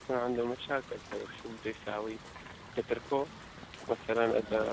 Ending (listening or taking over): listening